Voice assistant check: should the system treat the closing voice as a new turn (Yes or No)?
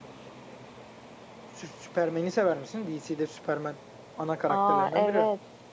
Yes